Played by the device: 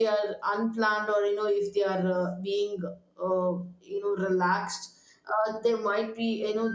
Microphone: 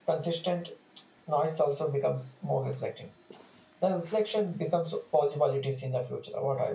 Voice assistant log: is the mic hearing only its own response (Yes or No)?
No